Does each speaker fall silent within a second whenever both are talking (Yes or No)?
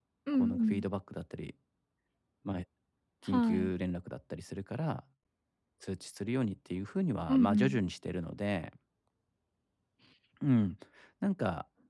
Yes